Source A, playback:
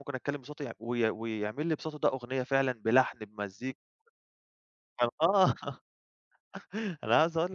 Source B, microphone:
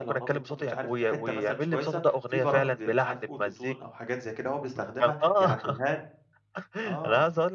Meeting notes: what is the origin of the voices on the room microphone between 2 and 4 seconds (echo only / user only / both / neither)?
both